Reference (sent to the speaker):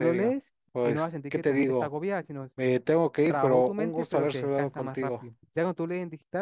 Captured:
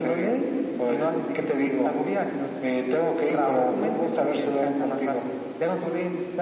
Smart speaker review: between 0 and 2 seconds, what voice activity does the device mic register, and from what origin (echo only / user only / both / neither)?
echo only